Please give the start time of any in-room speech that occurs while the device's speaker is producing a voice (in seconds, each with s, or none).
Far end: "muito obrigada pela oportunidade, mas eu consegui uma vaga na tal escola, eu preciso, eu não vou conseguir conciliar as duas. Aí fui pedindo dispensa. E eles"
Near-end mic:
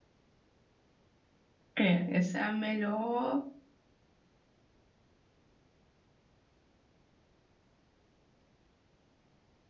1.8 s